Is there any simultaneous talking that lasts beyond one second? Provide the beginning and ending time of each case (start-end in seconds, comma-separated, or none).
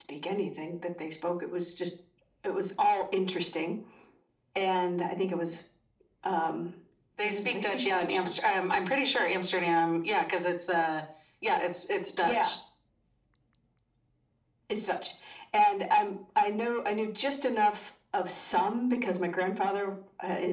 7.2-8.5